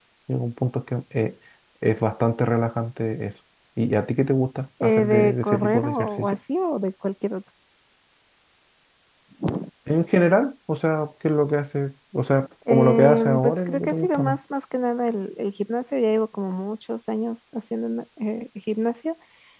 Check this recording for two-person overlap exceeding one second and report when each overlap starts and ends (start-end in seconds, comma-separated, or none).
4.8-6.4, 12.7-14.4